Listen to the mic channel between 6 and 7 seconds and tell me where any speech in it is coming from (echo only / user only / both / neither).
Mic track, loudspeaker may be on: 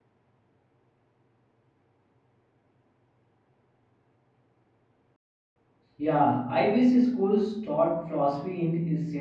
user only